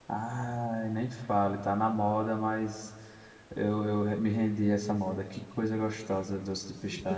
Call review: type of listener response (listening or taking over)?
taking over